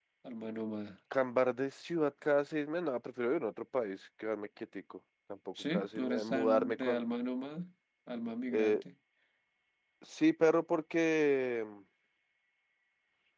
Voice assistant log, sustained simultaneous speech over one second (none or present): present